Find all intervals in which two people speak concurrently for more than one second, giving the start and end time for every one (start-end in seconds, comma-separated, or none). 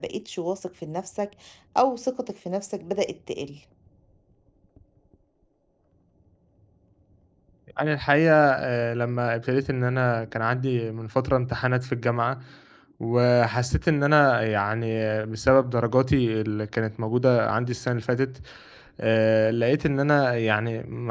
none